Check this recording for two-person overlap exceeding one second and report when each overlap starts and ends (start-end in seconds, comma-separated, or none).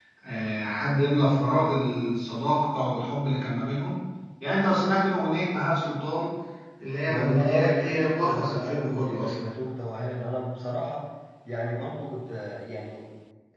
7.1-9.5